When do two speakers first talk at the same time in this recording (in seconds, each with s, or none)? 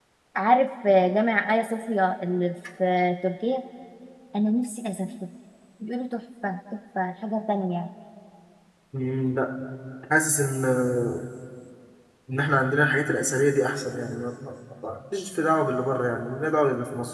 none